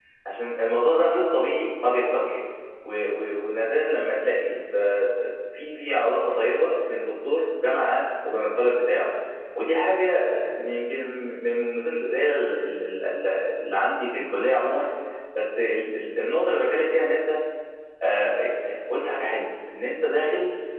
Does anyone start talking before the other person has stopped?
No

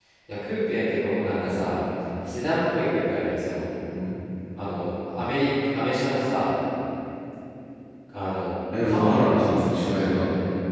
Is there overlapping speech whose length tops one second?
Yes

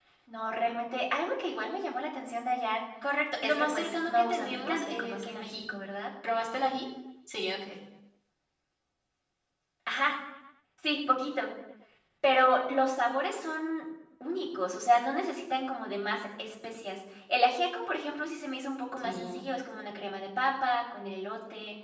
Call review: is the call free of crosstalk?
No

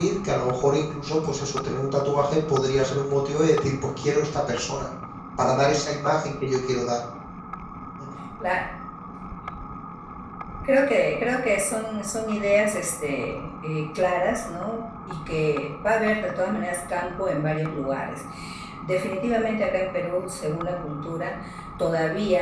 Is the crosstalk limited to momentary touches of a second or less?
Yes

